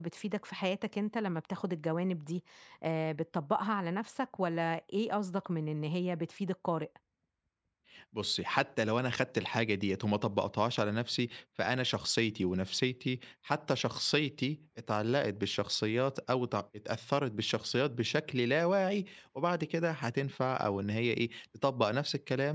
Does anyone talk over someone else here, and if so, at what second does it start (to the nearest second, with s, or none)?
none